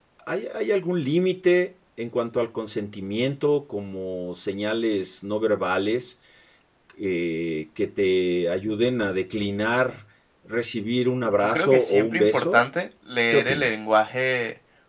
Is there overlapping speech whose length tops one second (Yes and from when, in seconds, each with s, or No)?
Yes, from 11.4 s